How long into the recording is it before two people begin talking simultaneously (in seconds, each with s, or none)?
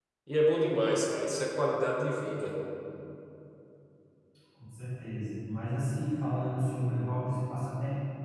none